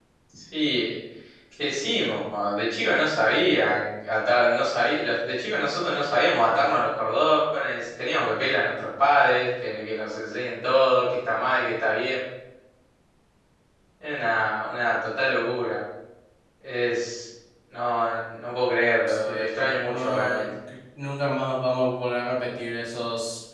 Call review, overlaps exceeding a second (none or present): present